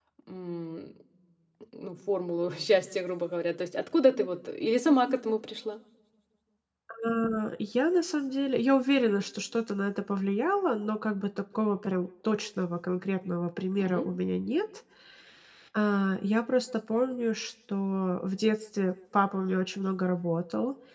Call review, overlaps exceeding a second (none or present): none